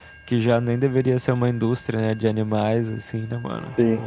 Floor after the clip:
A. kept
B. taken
B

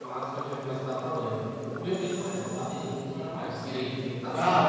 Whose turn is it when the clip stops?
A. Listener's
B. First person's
A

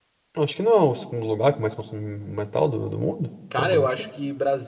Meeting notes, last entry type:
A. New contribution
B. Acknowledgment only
A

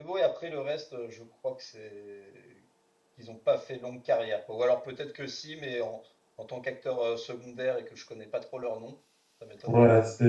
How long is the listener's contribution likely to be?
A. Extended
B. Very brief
A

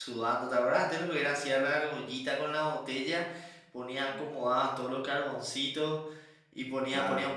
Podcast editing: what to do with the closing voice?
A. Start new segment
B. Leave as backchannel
B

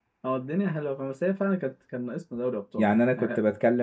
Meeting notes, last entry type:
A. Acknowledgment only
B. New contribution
B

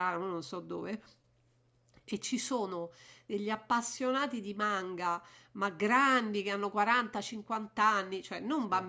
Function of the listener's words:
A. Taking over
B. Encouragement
B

